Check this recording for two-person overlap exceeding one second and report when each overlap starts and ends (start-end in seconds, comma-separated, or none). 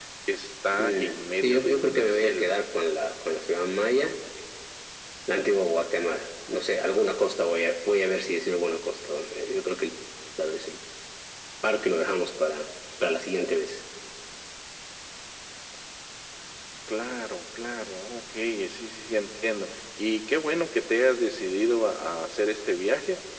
0.7-2.6